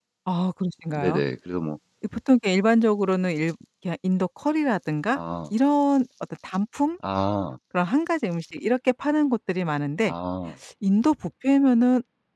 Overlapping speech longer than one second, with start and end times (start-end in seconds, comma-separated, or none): none